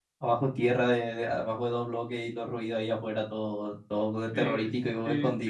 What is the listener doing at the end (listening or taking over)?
taking over